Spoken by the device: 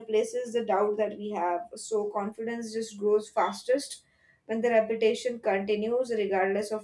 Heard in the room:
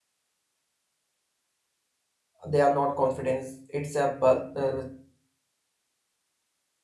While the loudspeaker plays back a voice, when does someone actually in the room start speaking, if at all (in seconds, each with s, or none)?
2.5 s